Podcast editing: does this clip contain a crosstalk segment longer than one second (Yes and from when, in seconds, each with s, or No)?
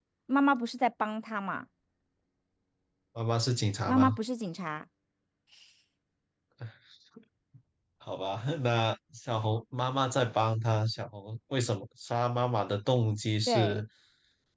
No